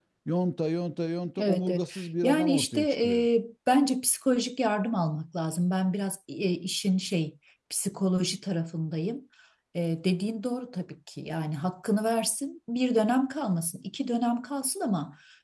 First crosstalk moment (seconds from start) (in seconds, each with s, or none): 1.4 s